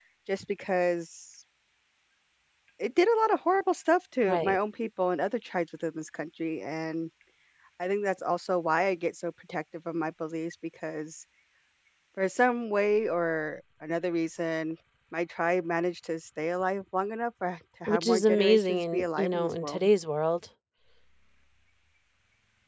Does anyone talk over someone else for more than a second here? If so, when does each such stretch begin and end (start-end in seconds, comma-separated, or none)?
17.9-19.9